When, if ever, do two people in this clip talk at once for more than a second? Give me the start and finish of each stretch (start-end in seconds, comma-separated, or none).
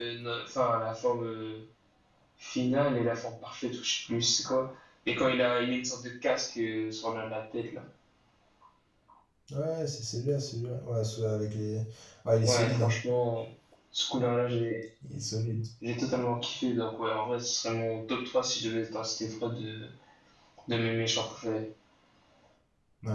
none